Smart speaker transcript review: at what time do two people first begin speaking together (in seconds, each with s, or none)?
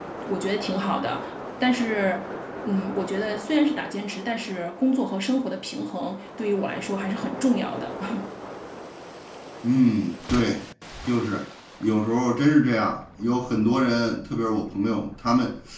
none